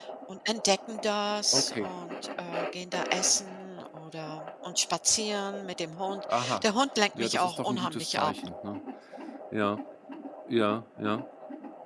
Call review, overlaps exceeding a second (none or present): present